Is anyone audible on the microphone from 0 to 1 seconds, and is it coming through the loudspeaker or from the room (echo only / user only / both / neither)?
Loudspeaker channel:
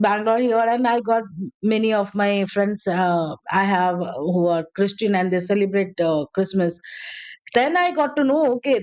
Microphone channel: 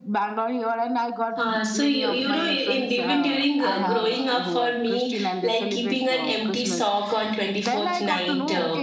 echo only